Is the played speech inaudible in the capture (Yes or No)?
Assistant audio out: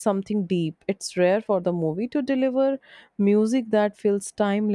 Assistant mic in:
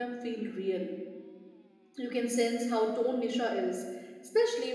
Yes